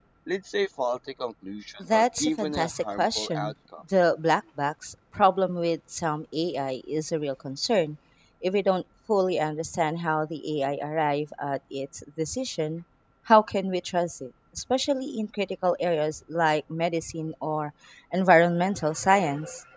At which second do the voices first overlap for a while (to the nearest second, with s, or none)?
2 s